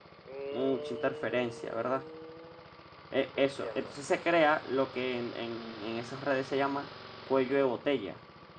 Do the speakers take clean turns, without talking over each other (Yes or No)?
No